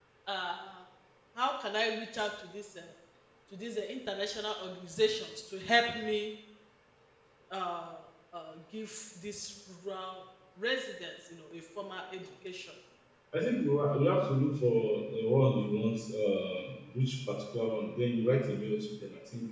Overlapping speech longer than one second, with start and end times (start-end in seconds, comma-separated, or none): none